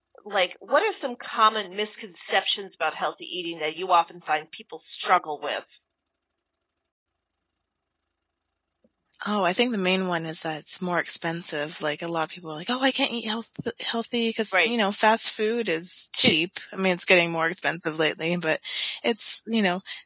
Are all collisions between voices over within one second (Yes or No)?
Yes